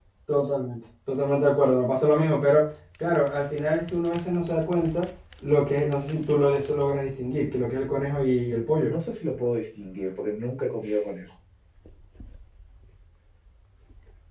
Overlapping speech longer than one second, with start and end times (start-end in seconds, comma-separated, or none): none